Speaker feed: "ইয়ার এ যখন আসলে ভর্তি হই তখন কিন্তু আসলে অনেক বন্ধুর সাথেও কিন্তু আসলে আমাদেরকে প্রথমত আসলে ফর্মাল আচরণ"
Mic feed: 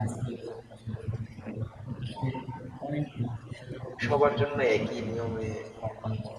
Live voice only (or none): সবার জন্য একই নিয়মে